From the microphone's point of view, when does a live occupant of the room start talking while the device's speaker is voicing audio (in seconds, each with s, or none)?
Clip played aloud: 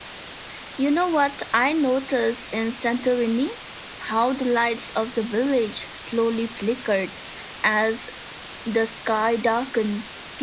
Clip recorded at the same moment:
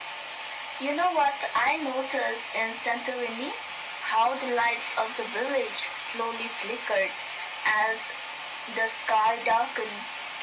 none